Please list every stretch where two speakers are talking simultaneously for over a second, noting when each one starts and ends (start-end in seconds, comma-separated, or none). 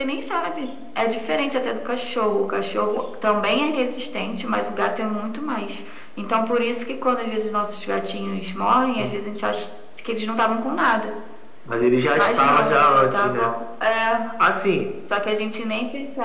12.2-13.5